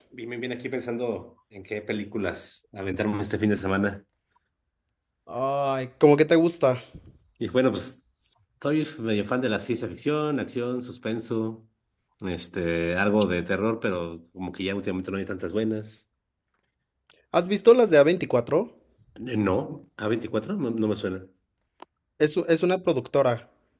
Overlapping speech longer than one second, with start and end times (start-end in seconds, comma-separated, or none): none